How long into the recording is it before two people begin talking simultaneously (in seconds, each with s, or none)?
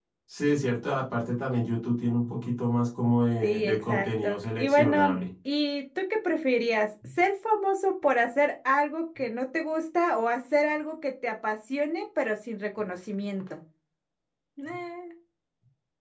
3.4 s